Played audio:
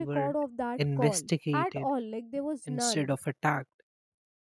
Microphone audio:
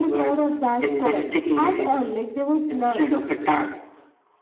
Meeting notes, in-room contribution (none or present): none